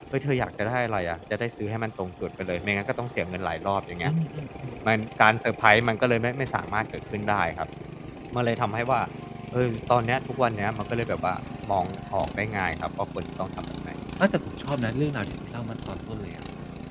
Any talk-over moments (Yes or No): No